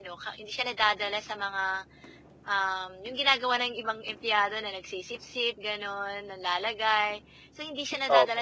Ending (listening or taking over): listening